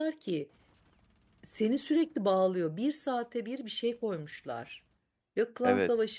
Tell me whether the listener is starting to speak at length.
No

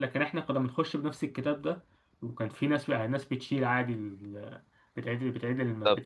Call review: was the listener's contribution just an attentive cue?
Yes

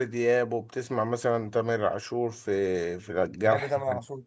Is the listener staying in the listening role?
No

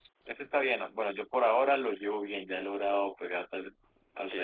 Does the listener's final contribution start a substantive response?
Yes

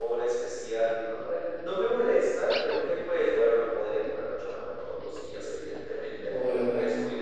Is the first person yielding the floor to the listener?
No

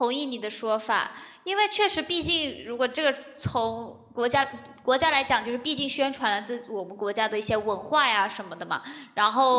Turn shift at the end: No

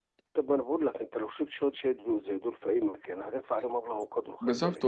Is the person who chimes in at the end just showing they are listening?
No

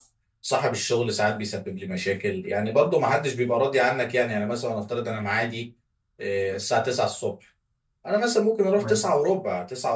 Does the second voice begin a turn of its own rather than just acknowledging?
No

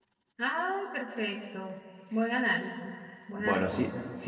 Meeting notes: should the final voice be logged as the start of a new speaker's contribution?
Yes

